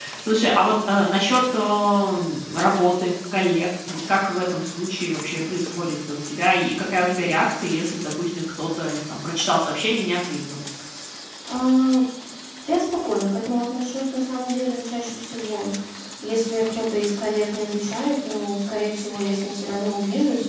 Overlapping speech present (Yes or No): No